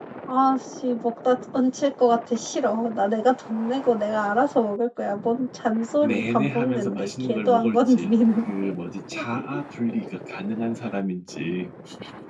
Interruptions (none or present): present